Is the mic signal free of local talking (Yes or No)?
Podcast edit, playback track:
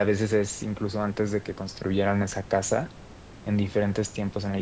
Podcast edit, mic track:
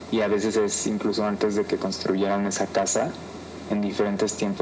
Yes